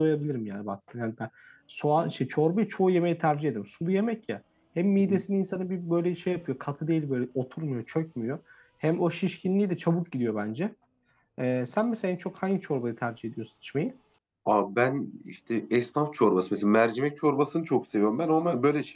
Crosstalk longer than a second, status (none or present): none